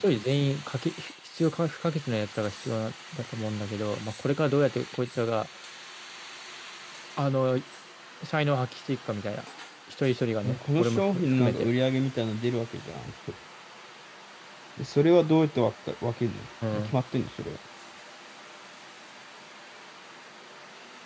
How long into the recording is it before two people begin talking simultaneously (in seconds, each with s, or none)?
10.4 s